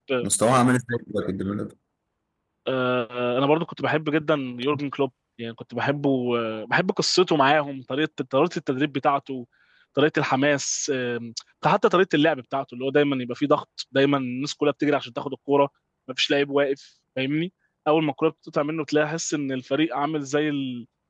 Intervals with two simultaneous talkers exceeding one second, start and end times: none

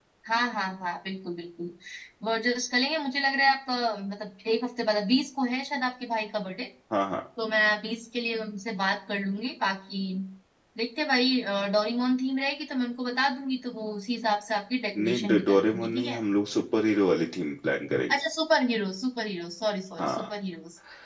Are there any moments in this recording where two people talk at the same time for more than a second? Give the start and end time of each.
15.0-16.2

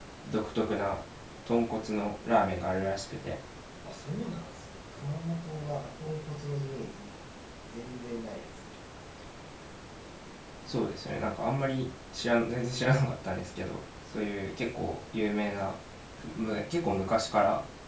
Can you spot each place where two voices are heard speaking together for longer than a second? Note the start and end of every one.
none

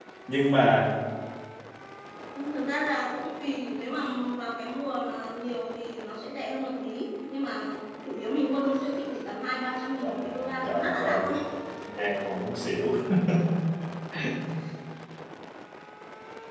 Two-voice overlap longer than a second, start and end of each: 10.0-11.3

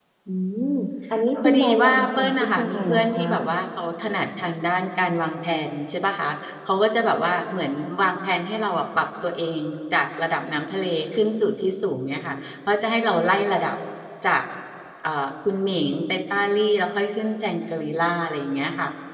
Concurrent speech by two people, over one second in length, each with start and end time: 1.4-3.2

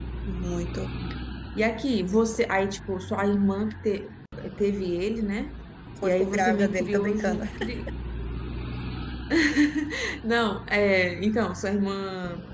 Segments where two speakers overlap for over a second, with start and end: 6.0-7.4

